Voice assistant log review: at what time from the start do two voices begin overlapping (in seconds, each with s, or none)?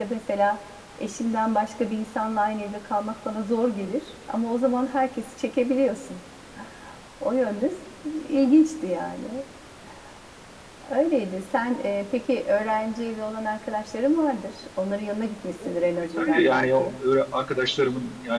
15.6 s